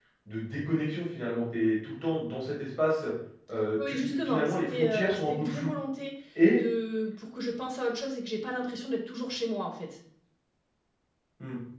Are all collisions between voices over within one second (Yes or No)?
No